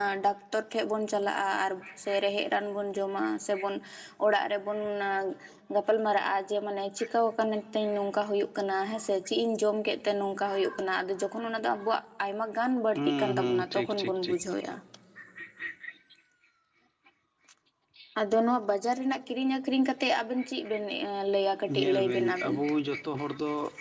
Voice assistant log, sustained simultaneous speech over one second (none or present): present